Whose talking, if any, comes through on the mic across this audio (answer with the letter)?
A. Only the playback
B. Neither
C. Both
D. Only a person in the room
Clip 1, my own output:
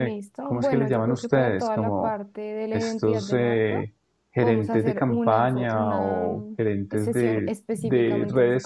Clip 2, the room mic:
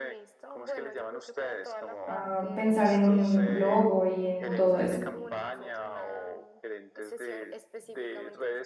C